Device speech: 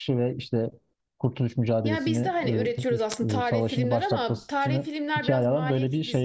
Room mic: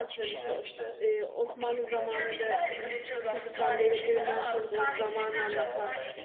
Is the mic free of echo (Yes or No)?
No